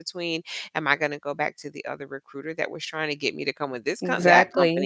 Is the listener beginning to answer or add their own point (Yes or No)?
No